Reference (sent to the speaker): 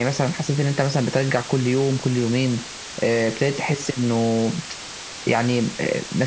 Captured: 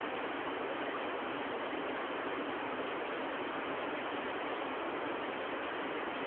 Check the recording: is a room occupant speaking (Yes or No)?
No